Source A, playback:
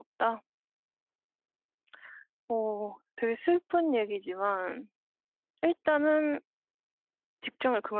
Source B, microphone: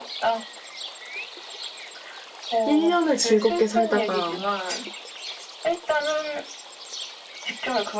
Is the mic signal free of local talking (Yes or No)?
No